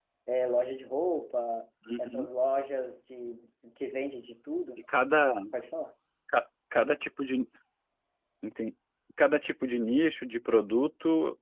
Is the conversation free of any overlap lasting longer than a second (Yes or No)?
Yes